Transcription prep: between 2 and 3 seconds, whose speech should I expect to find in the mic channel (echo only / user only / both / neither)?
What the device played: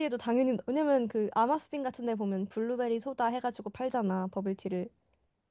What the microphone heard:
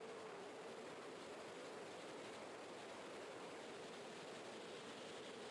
neither